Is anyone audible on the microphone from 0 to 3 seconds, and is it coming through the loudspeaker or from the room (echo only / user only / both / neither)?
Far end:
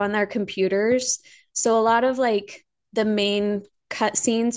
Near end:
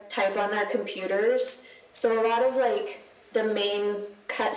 echo only